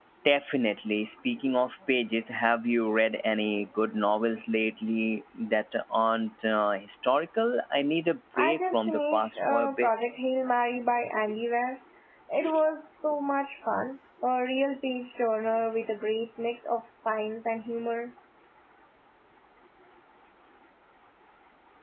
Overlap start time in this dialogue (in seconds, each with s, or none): 8.4 s